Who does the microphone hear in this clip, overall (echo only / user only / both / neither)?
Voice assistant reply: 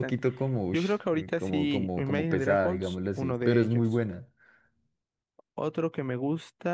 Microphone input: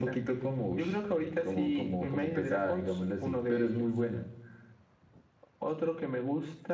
echo only